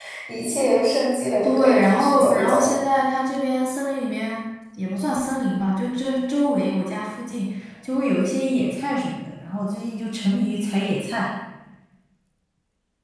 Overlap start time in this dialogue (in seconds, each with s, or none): 1.4 s